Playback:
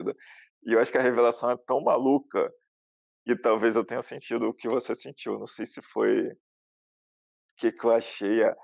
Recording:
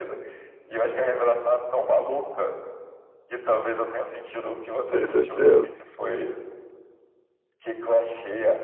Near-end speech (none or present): present